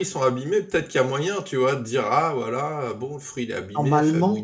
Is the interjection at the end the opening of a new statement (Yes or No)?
Yes